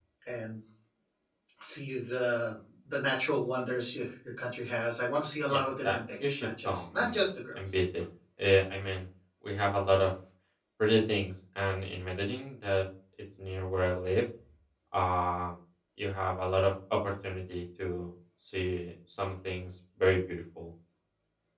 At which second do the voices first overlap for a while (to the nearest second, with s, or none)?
5 s